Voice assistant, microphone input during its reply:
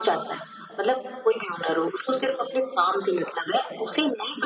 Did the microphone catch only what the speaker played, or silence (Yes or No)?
Yes